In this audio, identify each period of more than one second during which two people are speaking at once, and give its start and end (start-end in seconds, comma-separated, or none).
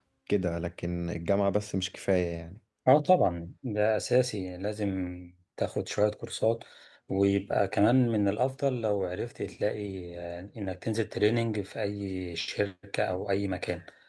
none